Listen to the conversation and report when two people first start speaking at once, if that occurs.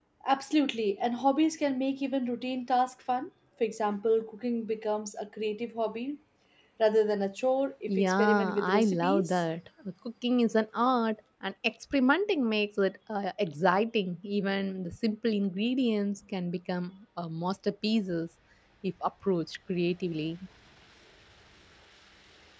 8 s

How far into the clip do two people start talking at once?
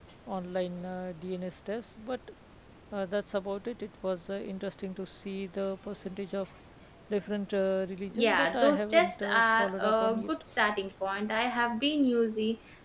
8 s

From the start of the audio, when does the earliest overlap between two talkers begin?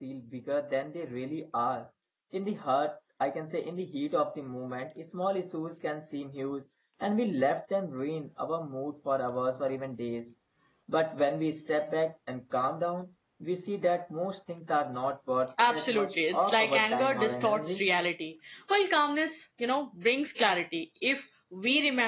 16 s

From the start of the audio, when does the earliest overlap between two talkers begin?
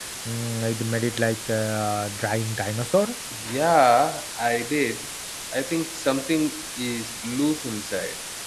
none

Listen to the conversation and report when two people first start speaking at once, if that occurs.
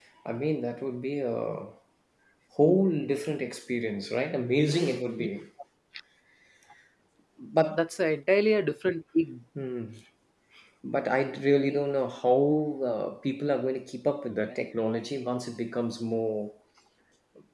none

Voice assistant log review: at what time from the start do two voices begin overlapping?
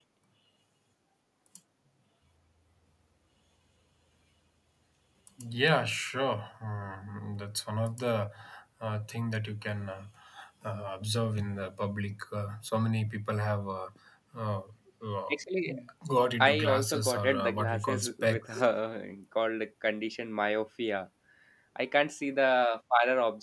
16 s

